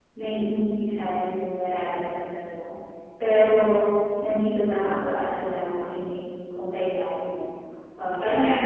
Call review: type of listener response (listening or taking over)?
taking over